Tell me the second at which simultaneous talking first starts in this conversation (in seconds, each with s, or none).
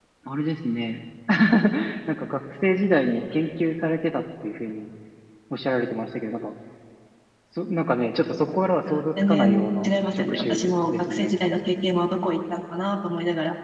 8.8 s